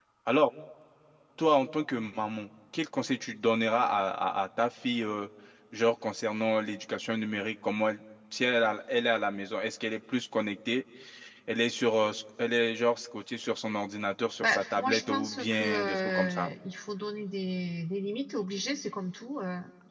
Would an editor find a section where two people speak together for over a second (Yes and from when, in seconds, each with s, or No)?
Yes, from 14.4 s